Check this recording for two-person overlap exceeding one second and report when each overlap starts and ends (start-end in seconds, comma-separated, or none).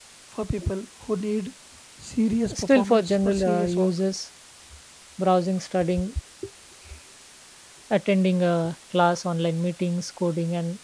2.5-3.9